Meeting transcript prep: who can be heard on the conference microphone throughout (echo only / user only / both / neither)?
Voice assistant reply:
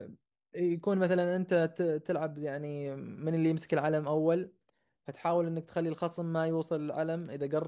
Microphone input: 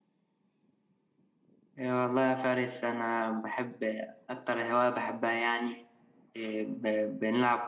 user only